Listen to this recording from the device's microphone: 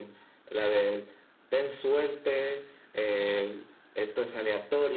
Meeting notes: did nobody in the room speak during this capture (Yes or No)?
Yes